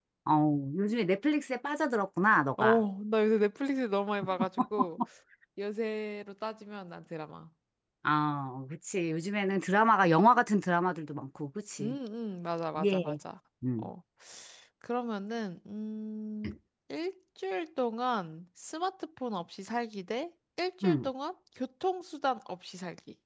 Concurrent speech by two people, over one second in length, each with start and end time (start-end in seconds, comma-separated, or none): none